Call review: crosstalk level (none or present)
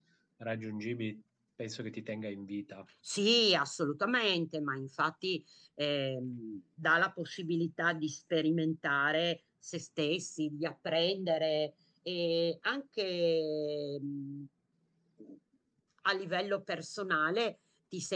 none